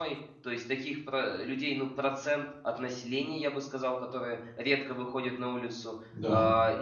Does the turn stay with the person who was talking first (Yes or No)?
Yes